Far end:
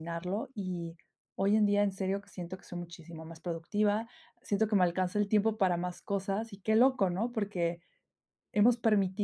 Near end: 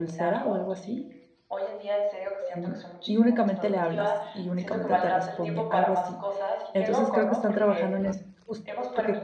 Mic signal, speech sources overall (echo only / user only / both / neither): both